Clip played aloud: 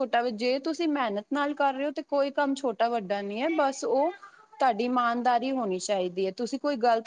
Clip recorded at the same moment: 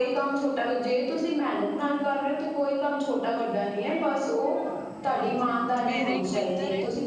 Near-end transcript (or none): ਹਾਂਜੀ -ਹਾਂਜੀ ਮੇਰਾ ਇੱਕ ਮਿੱਤਰ ਹੈ।